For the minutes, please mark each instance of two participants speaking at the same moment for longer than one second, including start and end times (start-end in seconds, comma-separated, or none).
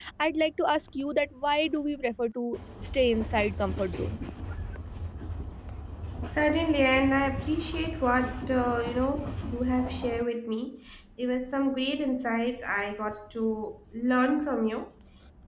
none